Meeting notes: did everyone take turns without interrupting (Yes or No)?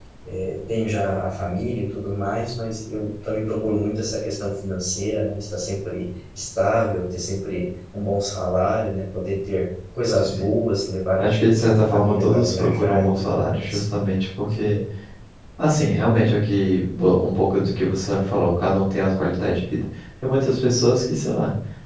No